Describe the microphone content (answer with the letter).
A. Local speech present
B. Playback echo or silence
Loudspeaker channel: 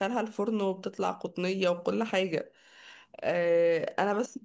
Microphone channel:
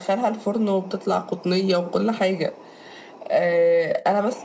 B